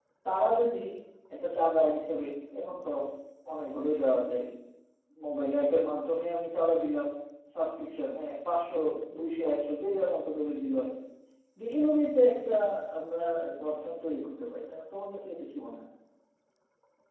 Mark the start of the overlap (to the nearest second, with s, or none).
none